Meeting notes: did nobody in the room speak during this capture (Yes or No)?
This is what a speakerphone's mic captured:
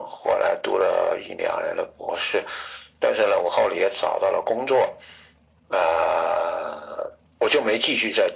Yes